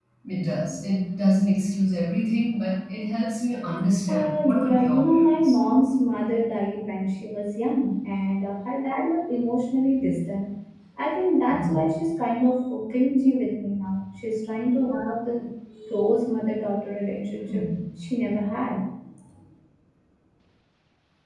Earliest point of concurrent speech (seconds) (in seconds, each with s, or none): 4.1 s